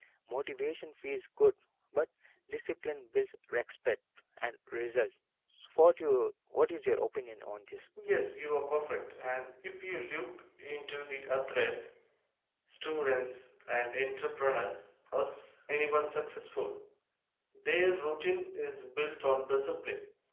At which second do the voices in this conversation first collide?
none

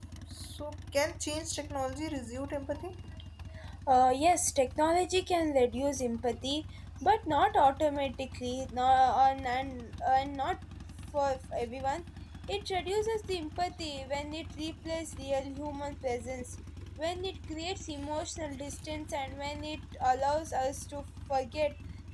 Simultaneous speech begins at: none

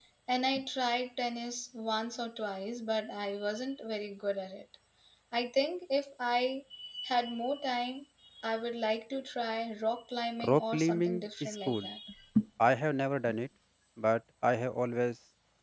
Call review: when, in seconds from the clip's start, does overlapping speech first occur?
10.4 s

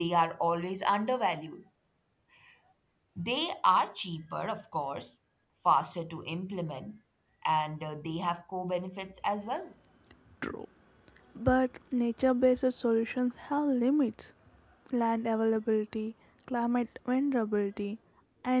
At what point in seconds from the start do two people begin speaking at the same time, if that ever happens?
none

